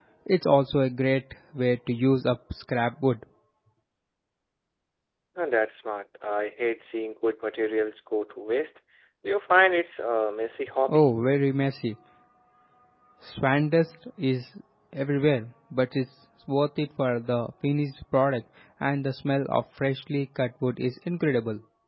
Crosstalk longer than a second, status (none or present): none